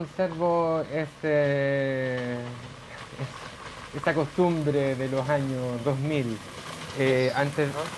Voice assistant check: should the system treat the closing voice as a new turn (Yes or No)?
No